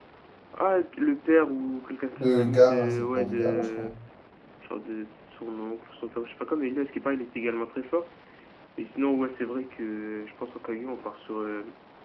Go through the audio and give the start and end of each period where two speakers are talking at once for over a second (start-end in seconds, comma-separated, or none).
2.2-3.9